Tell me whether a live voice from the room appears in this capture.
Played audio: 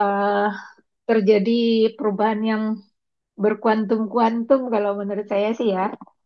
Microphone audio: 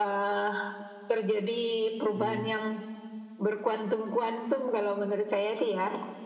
Yes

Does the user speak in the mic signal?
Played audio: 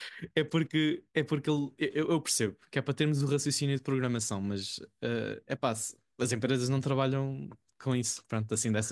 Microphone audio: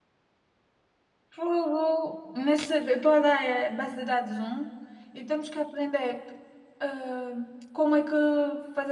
Yes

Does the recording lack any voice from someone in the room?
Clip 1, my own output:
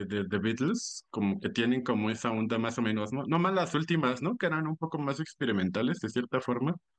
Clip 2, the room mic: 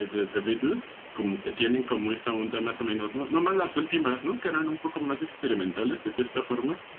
Yes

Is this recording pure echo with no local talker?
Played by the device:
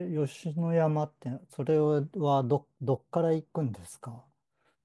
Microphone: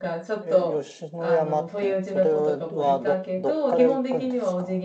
No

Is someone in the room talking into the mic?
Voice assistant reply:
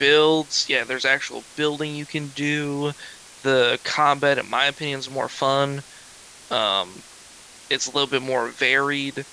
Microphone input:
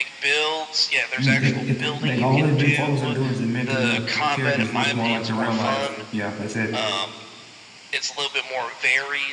Yes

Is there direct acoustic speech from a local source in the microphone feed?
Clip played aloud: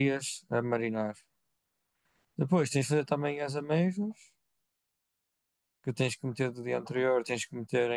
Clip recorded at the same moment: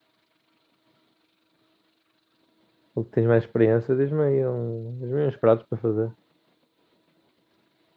Yes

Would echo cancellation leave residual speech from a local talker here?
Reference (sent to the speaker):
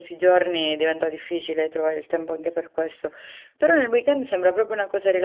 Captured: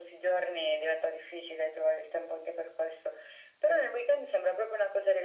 No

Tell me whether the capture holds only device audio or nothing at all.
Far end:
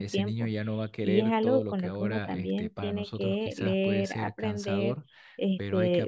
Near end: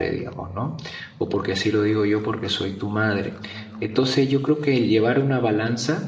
No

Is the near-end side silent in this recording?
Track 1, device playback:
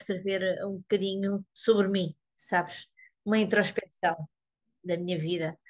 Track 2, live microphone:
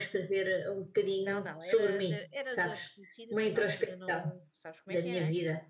No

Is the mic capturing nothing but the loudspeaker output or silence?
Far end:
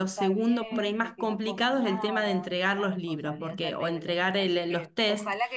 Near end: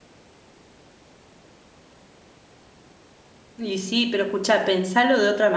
No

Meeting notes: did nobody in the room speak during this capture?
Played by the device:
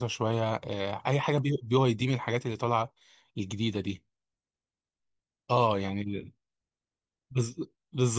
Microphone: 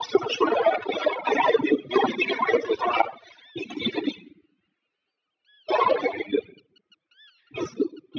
Yes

